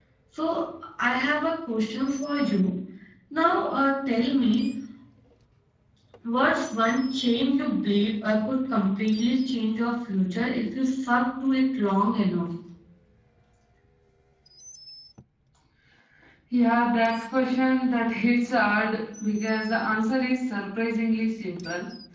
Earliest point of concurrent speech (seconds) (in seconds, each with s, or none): none